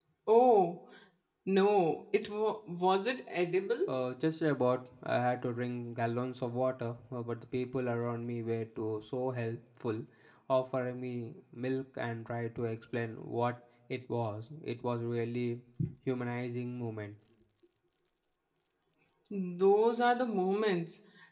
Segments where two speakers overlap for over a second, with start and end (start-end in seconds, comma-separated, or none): none